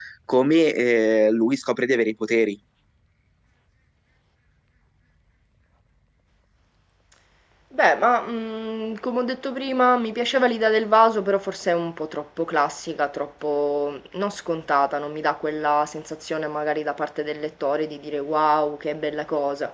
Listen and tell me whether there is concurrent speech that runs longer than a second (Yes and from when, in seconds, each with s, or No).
No